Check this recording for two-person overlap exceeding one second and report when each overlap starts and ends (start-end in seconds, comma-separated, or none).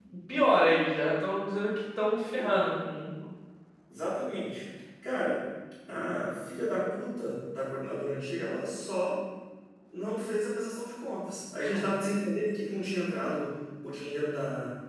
none